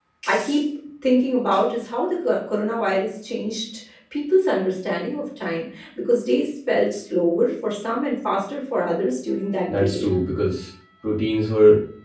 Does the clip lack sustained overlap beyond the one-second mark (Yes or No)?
Yes